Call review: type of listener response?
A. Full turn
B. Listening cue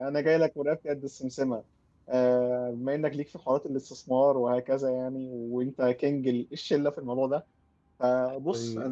B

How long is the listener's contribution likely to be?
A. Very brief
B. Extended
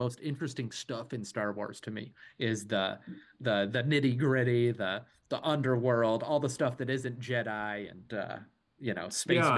B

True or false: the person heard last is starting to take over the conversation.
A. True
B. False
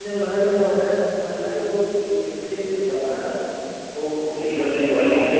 A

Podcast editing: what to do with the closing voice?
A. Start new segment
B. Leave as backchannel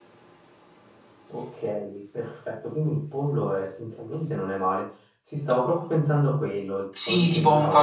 A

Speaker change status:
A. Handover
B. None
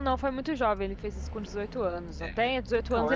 B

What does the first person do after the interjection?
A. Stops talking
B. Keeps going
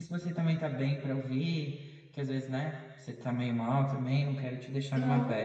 A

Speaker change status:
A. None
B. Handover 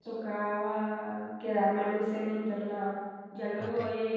A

